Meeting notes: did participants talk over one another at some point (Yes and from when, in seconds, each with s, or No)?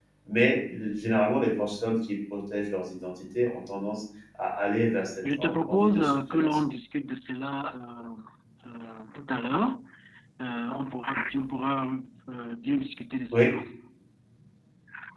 Yes, from 5.2 s